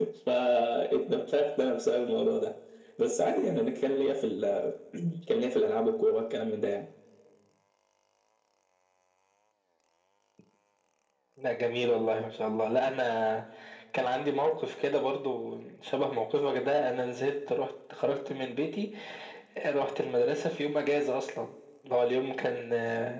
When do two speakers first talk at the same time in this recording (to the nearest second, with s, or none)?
none